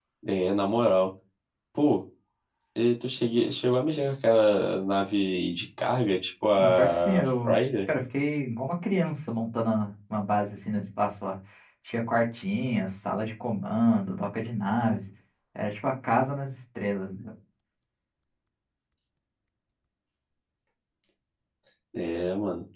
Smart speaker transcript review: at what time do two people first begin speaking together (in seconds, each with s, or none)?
6.5 s